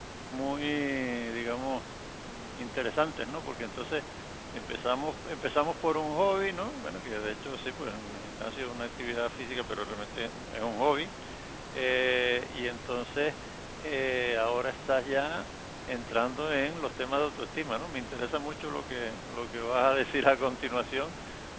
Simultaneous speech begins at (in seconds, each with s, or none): none